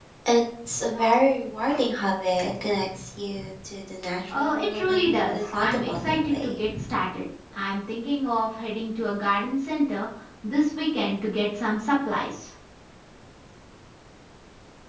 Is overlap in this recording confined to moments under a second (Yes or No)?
No